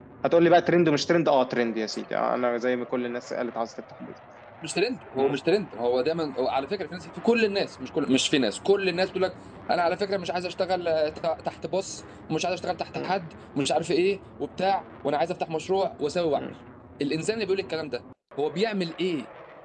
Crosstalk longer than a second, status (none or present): none